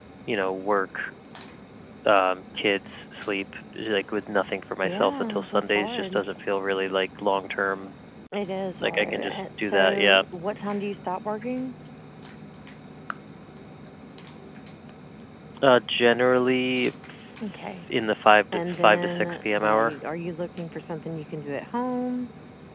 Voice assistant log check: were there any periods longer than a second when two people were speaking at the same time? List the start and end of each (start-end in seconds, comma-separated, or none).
4.8-6.2, 8.8-10.2, 18.5-20.0